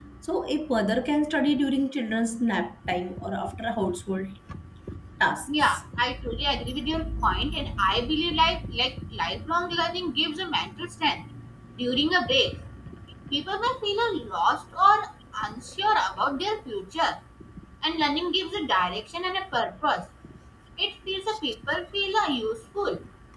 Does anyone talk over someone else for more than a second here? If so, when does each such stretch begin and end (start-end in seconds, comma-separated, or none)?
none